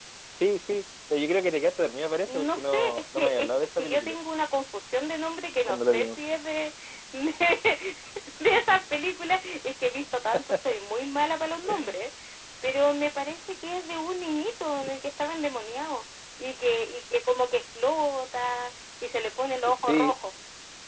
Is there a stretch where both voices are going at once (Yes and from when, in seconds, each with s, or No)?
Yes, from 2.3 s